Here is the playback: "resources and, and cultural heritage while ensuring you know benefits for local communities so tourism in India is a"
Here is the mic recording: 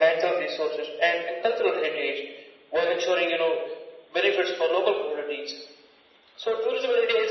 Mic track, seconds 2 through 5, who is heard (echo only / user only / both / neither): echo only